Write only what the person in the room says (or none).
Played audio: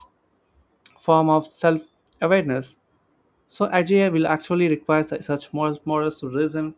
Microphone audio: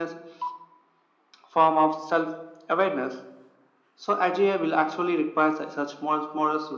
none